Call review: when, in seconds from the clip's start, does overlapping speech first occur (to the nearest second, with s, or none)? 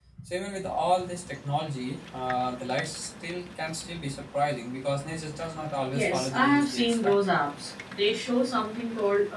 6 s